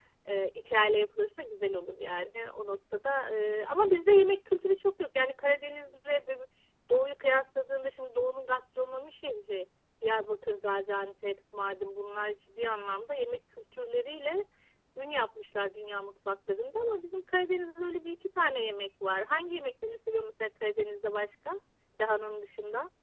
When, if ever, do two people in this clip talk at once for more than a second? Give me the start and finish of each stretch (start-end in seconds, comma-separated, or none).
none